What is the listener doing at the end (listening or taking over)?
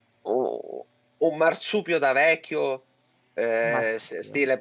listening